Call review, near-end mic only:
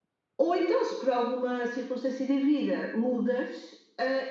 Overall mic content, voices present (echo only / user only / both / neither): user only